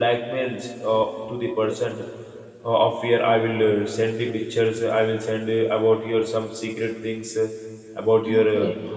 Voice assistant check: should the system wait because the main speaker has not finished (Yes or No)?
Yes